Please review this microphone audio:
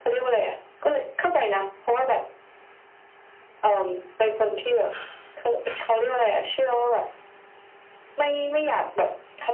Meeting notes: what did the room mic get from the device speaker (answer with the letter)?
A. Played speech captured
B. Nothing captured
A